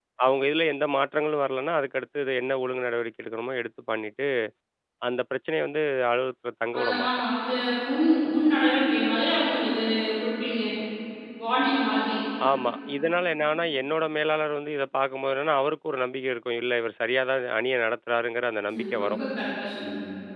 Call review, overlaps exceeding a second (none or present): none